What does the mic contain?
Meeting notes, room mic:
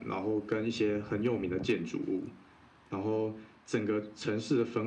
echo only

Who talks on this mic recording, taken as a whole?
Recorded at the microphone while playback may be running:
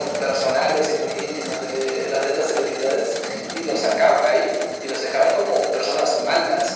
echo only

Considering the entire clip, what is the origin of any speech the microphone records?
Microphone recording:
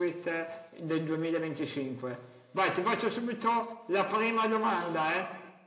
echo only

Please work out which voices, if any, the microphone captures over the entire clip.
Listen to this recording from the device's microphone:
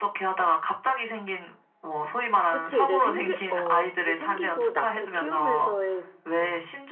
both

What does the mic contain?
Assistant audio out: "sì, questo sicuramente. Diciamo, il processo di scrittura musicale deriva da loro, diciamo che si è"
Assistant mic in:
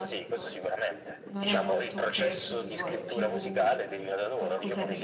both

